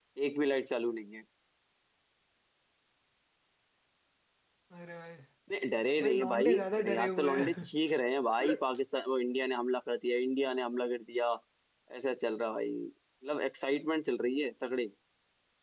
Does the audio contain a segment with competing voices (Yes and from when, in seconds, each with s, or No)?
Yes, from 6.0 s